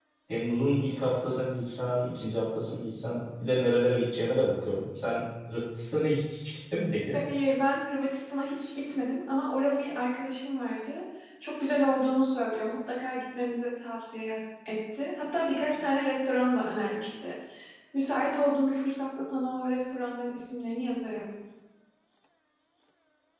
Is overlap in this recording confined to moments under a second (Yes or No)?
Yes